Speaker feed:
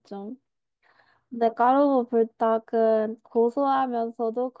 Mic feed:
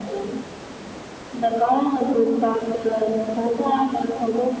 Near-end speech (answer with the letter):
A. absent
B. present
A